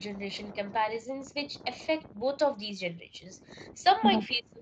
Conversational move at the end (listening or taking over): listening